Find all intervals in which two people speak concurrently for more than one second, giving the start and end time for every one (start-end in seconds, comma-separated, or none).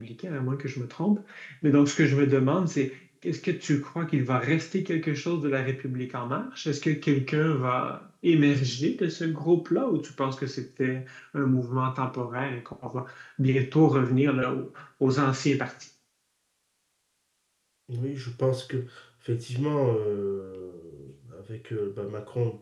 none